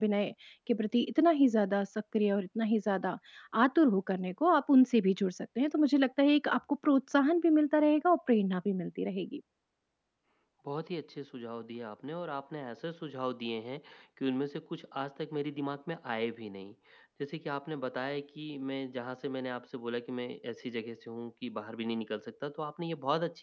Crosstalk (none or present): none